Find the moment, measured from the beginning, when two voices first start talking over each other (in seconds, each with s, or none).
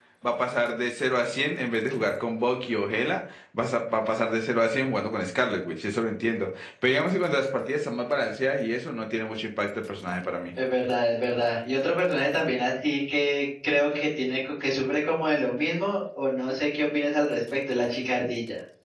none